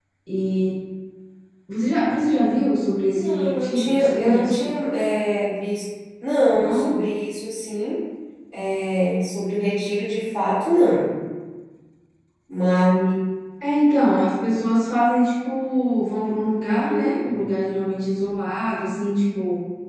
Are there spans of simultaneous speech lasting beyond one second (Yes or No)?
Yes